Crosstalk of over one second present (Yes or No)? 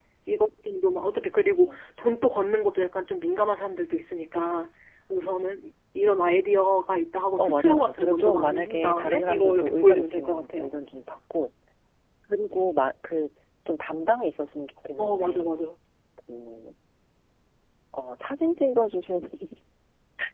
Yes